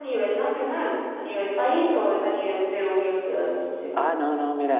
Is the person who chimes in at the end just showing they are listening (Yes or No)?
No